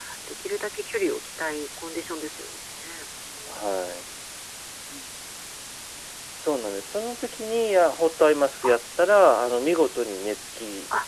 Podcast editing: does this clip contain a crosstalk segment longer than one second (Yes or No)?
No